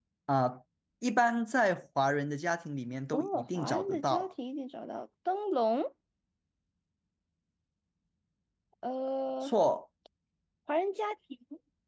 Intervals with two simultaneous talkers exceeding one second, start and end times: 3.1-4.3

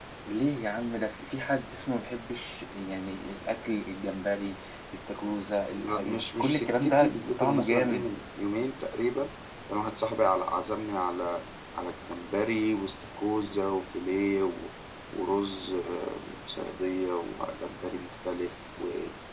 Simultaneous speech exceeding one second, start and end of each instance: 5.8-8.1

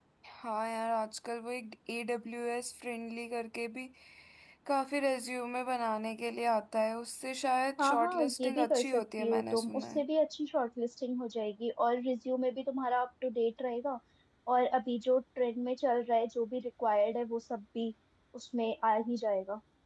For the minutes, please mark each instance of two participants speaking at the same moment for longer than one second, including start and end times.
7.8-10.0

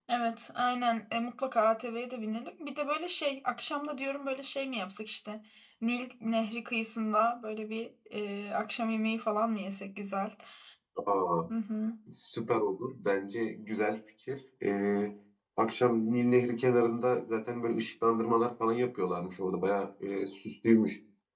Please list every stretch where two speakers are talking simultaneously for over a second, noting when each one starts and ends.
none

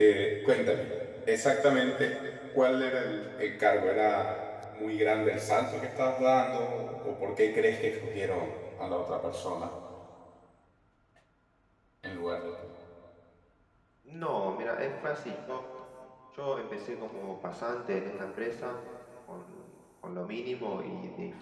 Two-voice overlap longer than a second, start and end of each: none

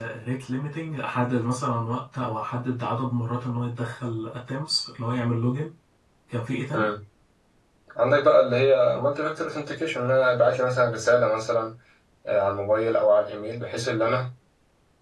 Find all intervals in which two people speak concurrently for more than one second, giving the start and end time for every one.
none

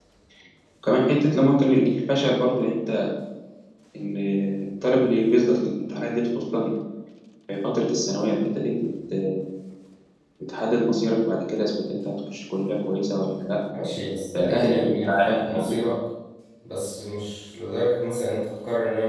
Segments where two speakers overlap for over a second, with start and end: 14.3-15.8

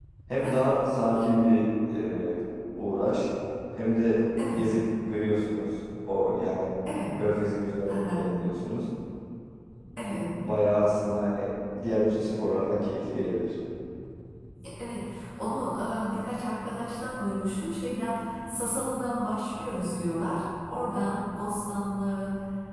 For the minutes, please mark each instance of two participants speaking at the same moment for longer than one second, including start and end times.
none

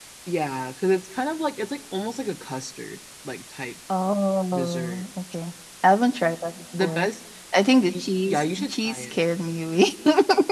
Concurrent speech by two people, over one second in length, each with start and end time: 7.9-9.2

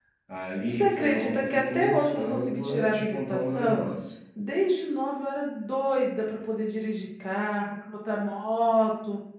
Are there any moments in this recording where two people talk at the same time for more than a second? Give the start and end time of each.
0.7-3.9

